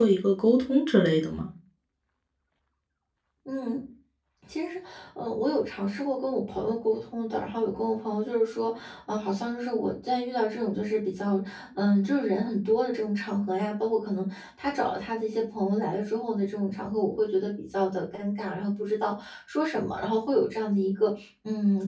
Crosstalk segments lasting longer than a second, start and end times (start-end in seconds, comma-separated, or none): none